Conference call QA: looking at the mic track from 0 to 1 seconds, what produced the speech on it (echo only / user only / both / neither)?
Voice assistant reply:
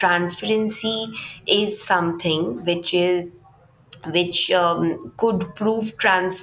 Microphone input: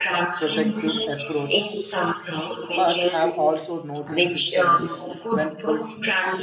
both